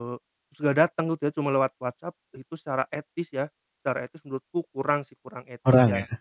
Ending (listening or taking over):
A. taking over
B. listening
A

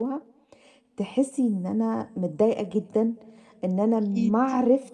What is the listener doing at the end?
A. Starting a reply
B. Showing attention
B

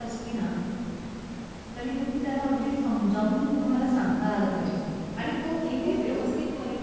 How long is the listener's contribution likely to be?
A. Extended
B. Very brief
A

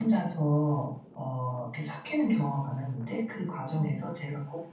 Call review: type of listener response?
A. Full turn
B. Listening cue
B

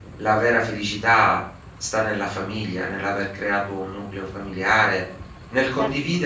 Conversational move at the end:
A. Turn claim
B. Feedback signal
B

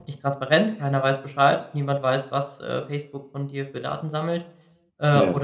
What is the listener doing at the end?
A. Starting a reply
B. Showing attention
B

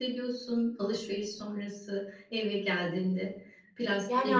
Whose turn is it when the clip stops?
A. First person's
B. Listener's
B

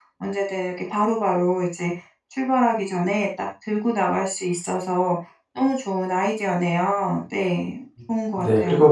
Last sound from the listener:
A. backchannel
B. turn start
B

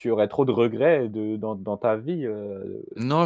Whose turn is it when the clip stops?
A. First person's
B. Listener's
B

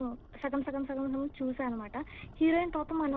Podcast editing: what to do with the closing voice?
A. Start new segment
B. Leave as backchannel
B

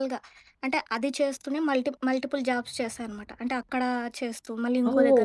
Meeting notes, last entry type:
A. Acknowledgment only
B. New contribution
B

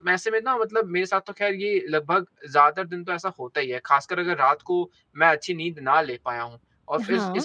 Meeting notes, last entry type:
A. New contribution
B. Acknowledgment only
B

